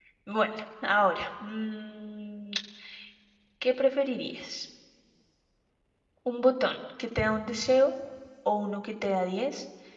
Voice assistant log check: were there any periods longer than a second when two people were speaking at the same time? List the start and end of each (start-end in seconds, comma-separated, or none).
none